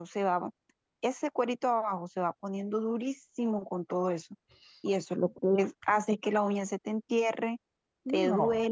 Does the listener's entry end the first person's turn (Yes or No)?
No